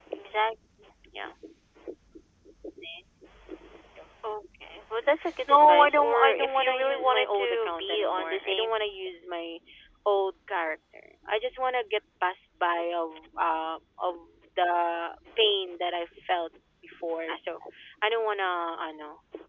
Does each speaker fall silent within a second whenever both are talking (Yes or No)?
No